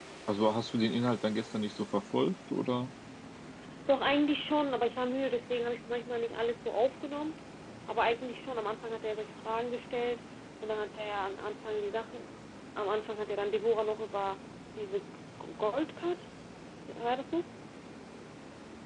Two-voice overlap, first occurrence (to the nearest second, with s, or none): none